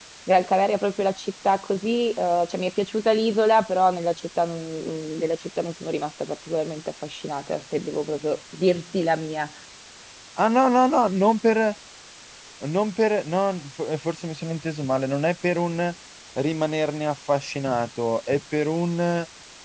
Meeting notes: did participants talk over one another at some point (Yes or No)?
No